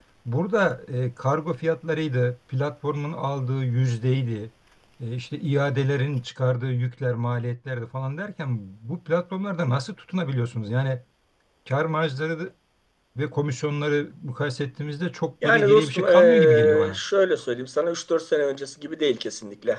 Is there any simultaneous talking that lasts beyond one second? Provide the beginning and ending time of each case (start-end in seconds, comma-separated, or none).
15.4-17.0